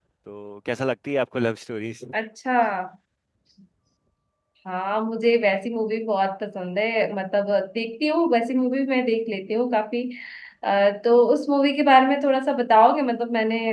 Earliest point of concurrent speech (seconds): none

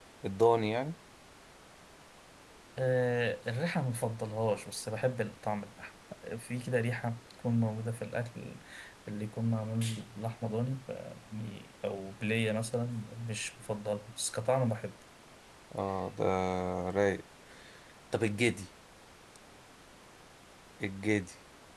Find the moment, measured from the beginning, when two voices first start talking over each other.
none

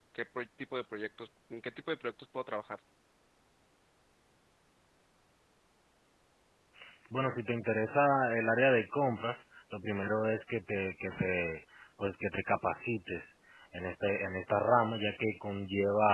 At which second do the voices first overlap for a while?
none

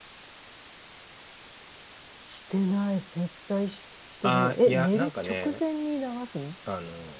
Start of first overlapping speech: 4.2 s

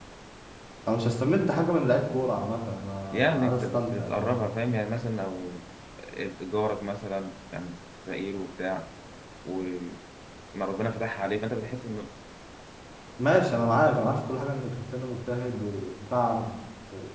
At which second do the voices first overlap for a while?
3.1 s

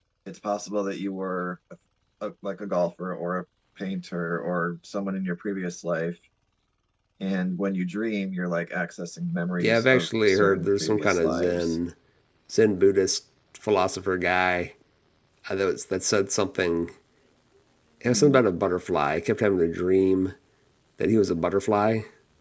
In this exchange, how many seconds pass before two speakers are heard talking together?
9.6 s

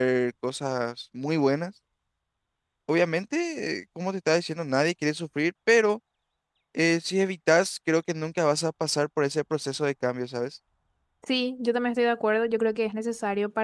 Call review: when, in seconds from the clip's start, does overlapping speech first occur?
none

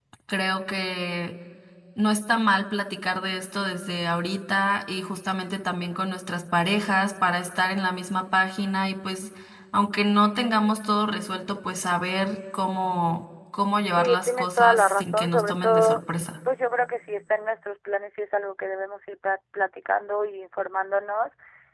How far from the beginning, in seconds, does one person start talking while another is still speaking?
14.0 s

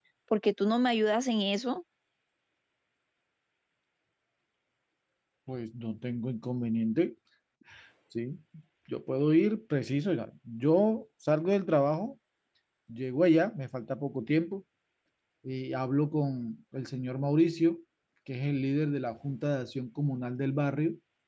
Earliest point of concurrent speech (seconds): none

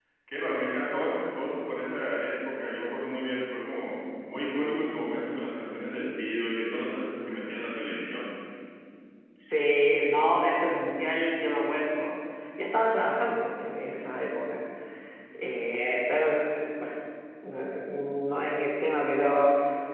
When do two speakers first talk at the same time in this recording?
none

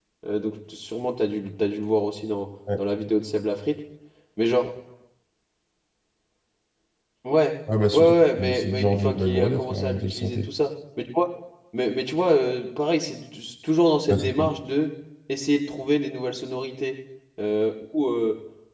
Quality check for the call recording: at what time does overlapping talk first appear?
7.9 s

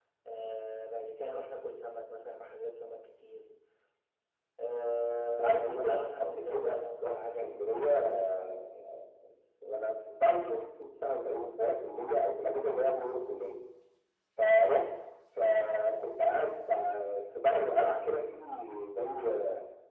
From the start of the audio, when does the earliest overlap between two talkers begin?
5.4 s

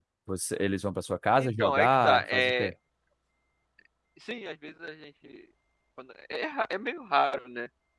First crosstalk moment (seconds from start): 1.4 s

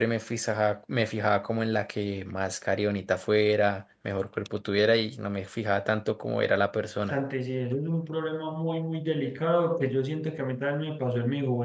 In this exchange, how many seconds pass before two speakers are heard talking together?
none

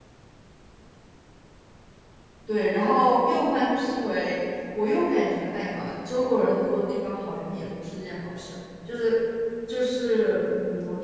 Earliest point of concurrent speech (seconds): none

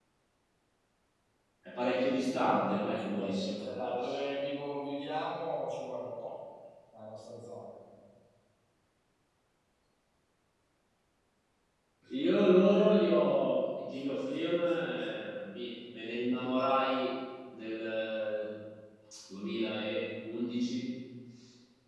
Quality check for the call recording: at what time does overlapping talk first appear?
2.3 s

